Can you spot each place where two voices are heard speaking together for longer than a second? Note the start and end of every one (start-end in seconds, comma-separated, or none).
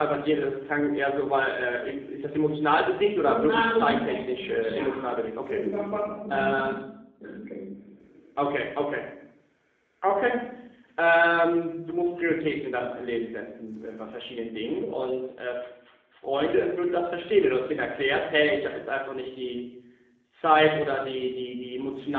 3.2-5.0